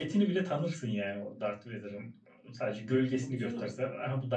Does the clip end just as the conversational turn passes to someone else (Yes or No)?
No